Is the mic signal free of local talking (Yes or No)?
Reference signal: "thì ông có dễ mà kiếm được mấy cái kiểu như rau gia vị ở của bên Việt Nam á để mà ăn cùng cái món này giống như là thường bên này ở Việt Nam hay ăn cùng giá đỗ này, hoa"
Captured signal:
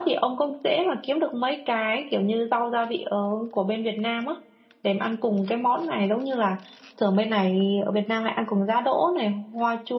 Yes